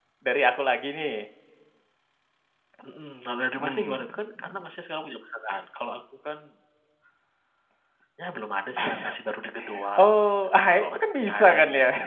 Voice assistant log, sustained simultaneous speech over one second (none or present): present